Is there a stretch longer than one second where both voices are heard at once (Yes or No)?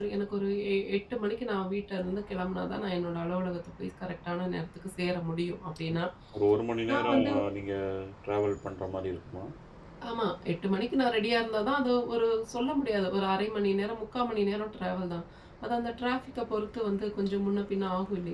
No